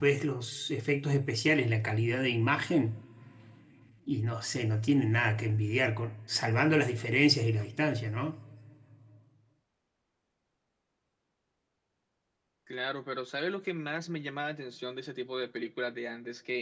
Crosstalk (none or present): none